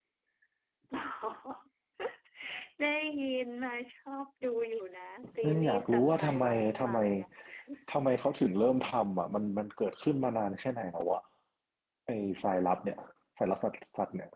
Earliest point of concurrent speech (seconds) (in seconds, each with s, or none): 5.4 s